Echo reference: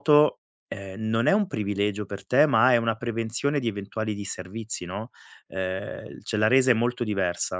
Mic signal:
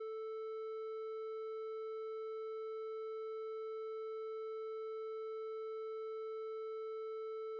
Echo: none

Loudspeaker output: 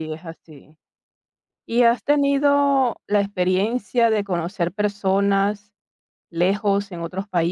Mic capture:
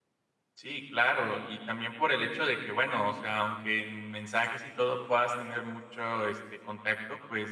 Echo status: none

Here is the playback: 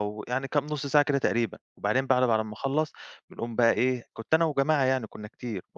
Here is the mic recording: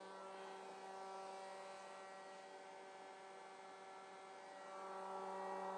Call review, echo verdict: none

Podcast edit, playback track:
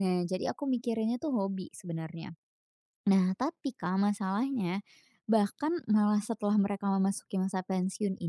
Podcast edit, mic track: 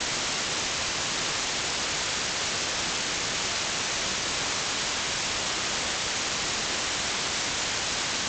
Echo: none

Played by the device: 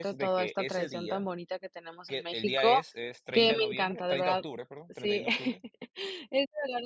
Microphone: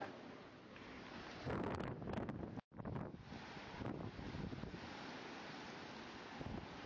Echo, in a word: none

